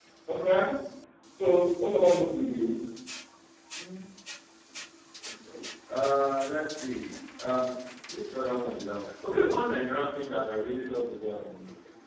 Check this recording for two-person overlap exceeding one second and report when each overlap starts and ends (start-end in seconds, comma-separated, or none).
none